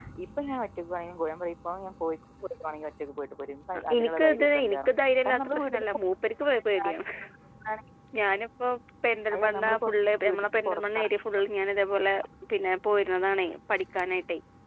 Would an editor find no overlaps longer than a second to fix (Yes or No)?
No